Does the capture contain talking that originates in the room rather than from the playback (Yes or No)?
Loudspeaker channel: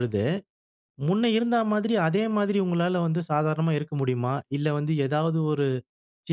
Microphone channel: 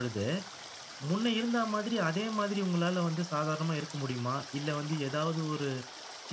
No